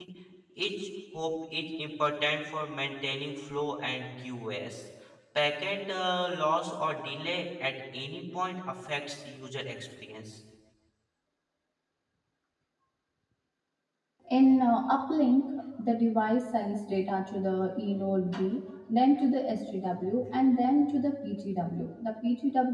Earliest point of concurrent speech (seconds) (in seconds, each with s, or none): none